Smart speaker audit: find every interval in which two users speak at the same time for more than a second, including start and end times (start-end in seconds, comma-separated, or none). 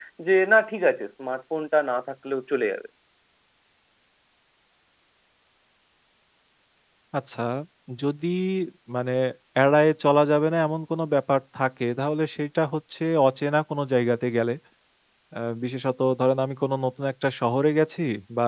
none